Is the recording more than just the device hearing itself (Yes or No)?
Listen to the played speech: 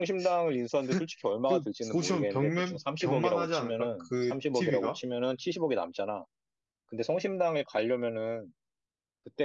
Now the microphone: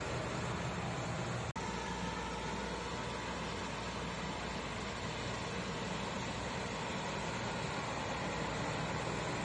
No